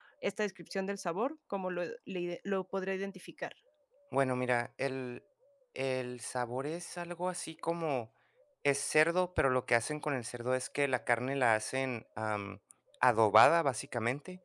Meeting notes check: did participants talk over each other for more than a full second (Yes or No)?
No